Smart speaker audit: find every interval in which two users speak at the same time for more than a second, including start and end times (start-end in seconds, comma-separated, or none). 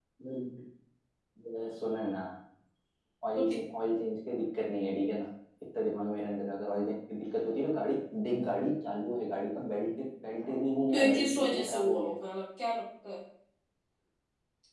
10.9-12.1